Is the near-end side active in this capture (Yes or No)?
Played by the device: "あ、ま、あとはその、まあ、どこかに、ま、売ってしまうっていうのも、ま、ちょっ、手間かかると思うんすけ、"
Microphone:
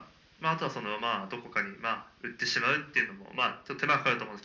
No